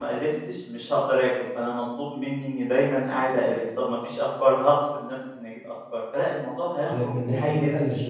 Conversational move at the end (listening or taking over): taking over